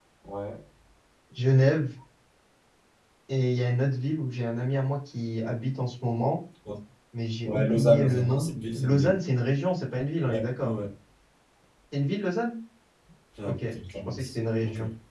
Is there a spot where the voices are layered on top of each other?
Yes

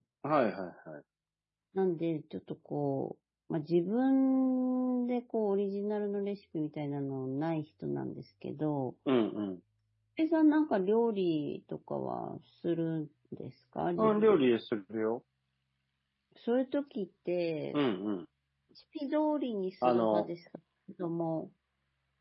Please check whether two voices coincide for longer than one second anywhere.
No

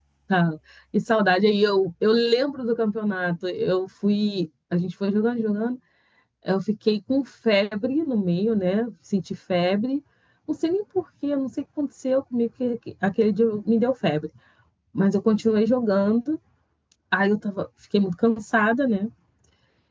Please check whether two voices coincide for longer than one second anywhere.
No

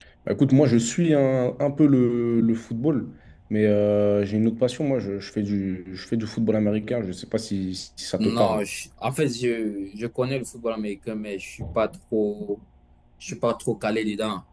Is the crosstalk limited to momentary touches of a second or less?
Yes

